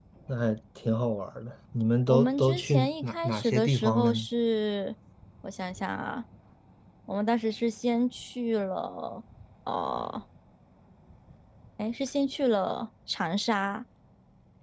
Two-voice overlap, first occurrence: 2.1 s

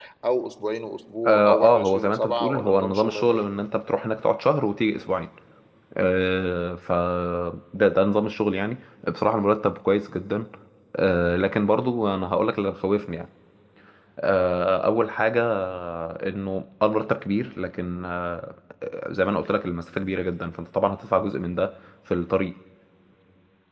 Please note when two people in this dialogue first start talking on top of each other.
1.2 s

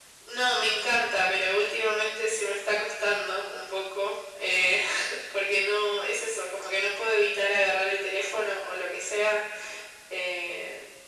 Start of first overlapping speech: none

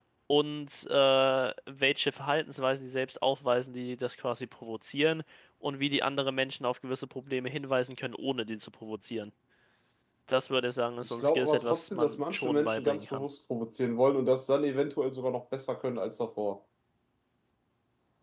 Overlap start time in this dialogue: 11.0 s

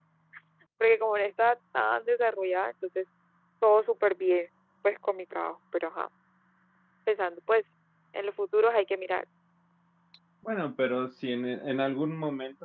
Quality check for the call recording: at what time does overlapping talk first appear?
none

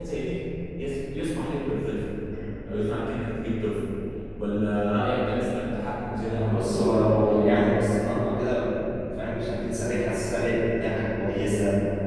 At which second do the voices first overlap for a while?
6.2 s

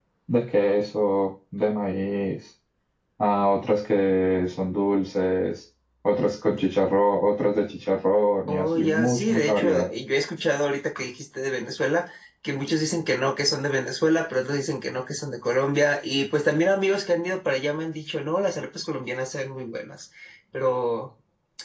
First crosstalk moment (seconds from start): 8.5 s

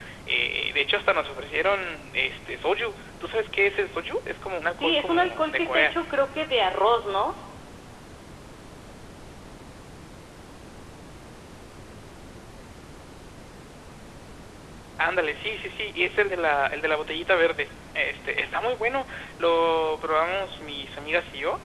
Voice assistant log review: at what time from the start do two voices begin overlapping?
4.7 s

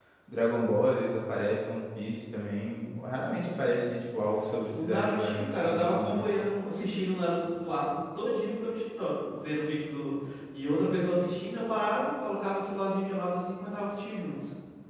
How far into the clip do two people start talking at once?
4.7 s

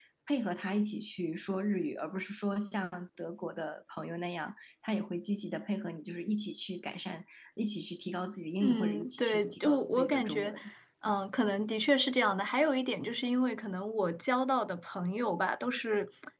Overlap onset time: 8.6 s

